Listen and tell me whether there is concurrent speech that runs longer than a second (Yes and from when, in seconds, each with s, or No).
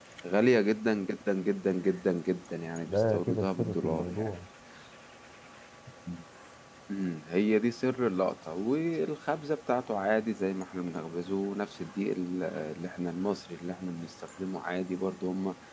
Yes, from 2.9 s